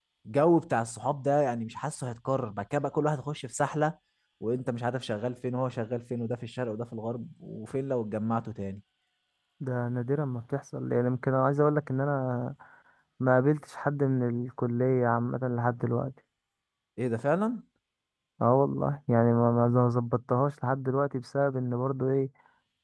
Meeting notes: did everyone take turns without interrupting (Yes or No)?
Yes